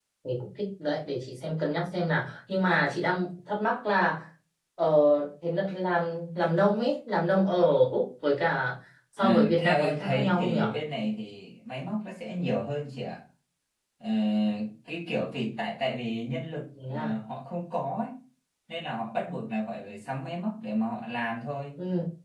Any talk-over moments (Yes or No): Yes